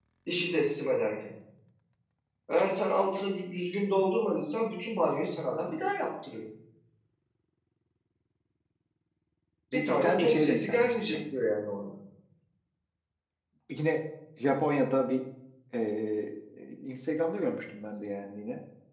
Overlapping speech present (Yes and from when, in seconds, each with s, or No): Yes, from 9.7 s